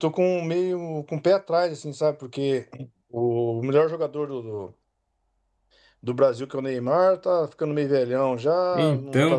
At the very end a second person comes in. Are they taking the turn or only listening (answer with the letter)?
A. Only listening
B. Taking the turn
A